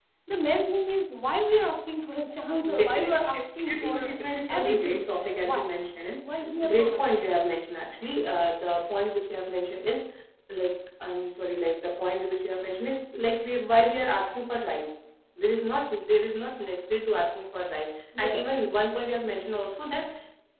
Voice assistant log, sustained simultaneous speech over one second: present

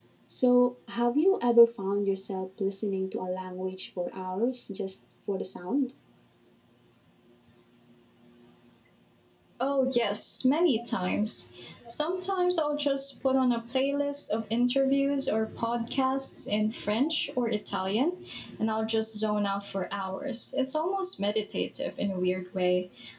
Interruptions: none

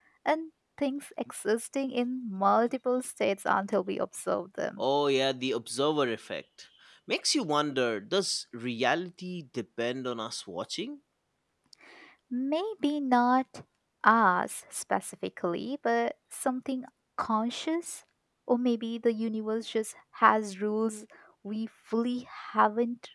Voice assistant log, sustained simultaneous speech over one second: none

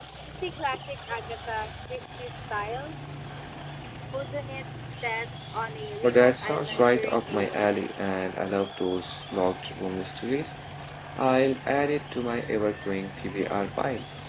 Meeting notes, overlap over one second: present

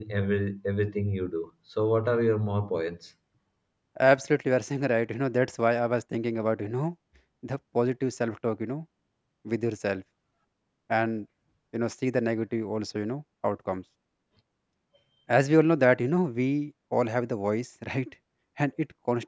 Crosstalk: none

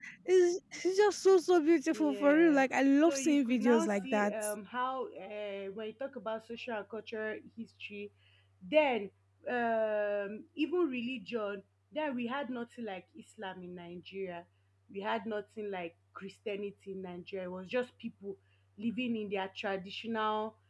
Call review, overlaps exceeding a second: present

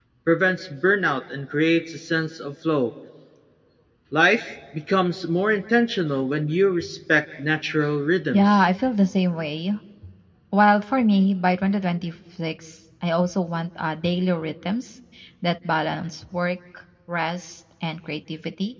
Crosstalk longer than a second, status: none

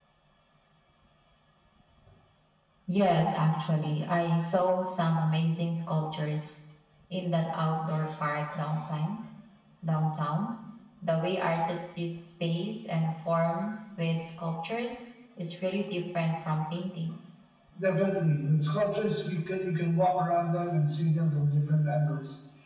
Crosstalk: none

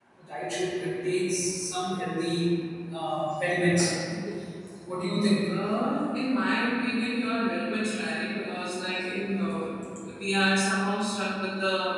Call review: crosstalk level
none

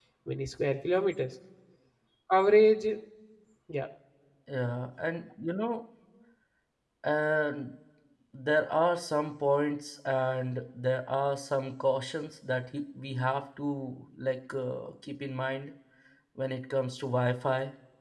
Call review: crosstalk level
none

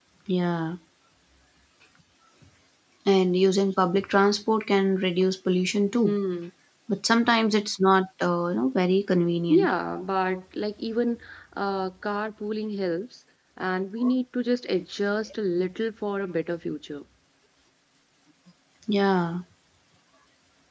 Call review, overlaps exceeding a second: none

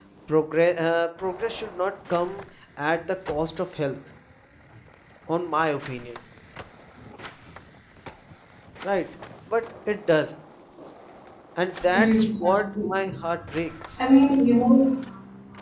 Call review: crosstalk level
present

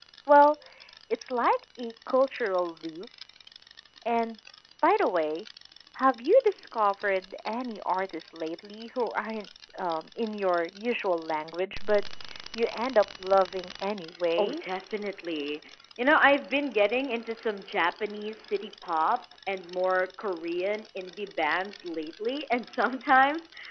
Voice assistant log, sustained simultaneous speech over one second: none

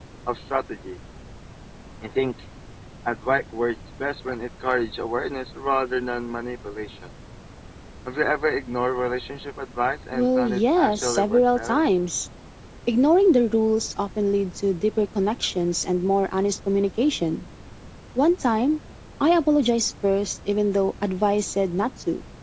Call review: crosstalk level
present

